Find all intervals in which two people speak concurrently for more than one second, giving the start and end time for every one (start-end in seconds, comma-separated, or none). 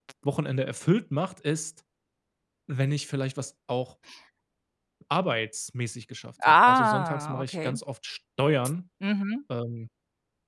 6.4-7.8